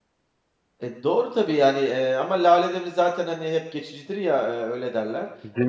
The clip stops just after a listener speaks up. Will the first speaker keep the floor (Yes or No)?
Yes